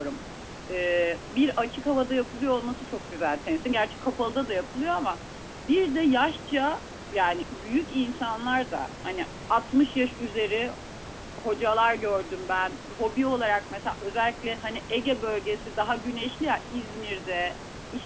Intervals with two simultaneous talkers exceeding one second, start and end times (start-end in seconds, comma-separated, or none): none